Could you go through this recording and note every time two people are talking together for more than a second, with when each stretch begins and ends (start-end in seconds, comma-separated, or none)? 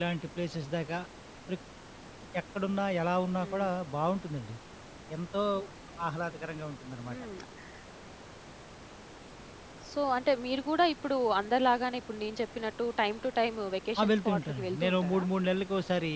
14.0-15.2